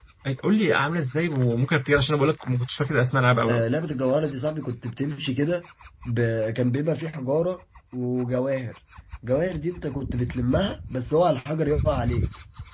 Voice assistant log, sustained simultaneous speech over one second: none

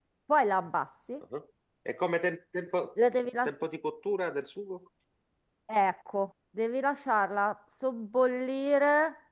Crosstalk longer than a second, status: none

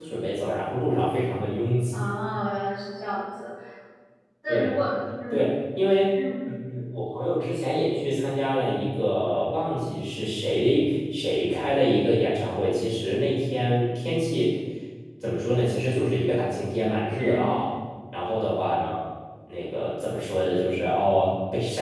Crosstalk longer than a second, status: none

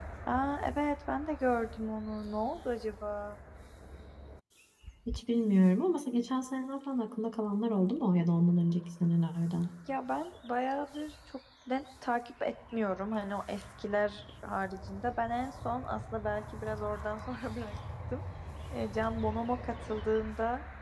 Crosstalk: none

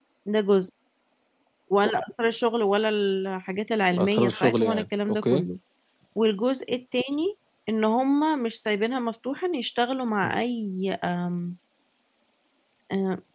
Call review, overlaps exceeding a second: present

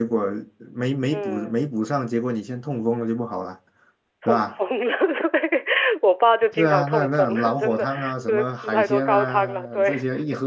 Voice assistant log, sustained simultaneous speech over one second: present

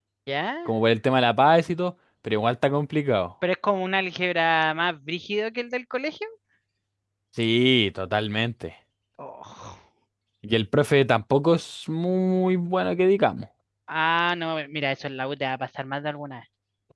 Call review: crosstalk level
none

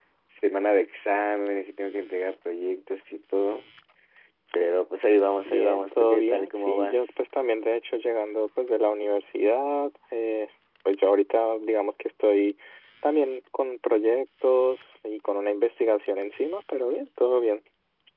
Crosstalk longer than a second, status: present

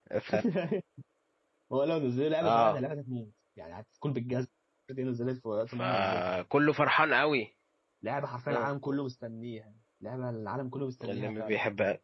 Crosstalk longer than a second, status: none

